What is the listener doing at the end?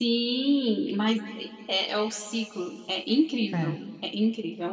listening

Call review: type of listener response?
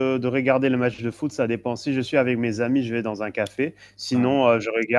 listening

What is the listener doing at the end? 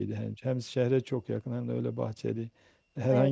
listening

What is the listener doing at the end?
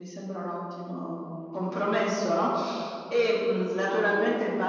listening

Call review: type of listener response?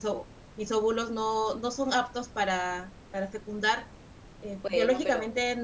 listening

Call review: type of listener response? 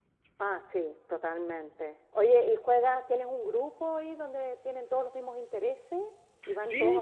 taking over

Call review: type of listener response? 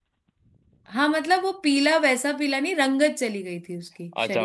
taking over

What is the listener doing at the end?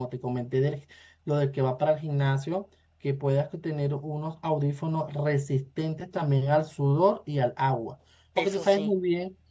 listening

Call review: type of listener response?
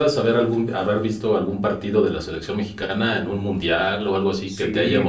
taking over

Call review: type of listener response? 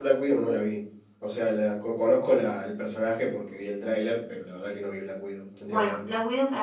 taking over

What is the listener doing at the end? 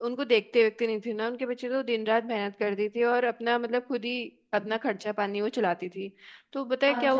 listening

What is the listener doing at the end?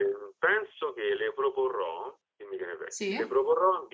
listening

